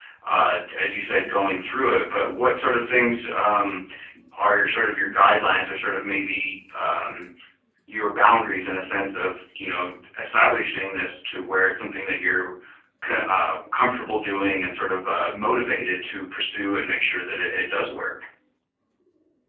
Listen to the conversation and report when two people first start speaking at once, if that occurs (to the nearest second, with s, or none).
none